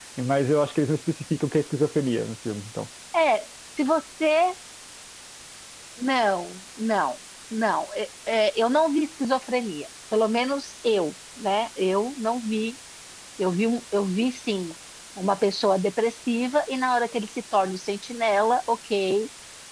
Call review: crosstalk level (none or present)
none